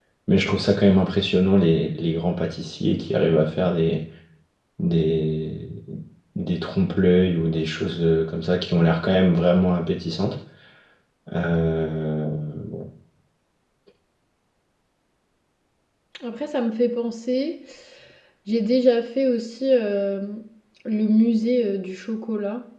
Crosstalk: none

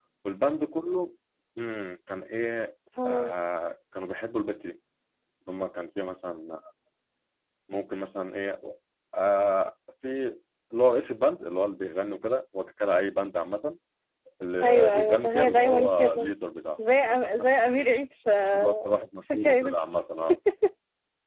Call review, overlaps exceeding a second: present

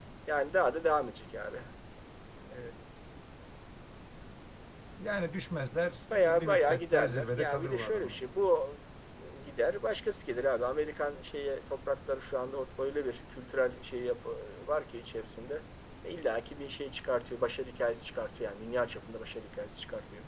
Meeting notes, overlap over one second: present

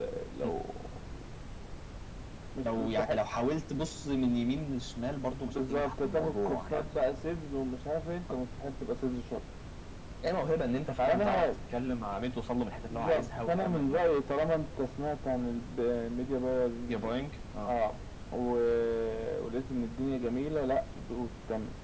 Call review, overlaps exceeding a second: present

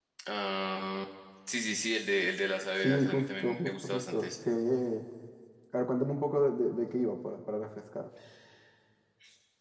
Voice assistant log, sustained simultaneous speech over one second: present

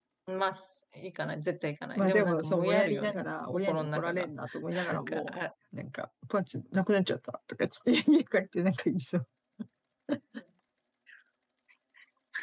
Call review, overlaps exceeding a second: present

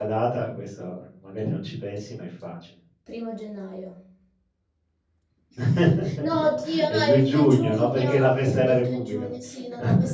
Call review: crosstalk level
present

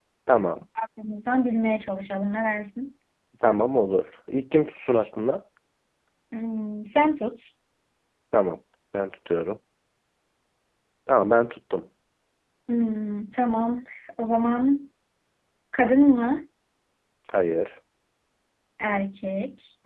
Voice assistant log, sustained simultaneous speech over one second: none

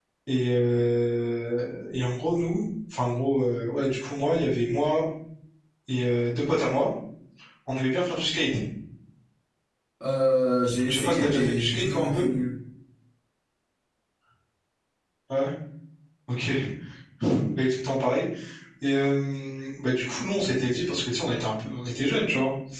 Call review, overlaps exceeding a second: present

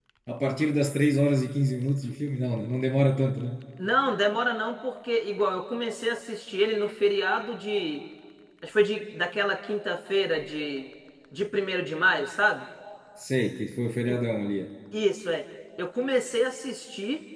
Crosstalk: none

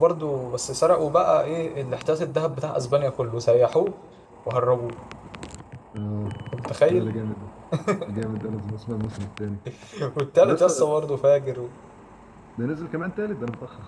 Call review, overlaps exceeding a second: none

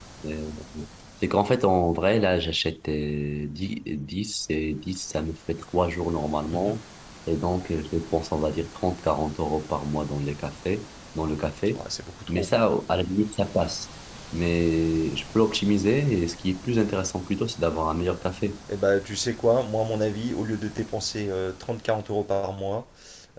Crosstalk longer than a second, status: none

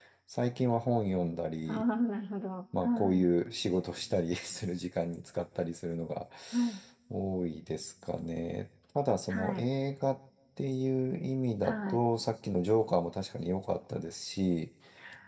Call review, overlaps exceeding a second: none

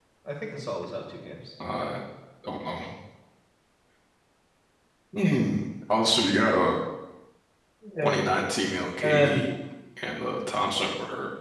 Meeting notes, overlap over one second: none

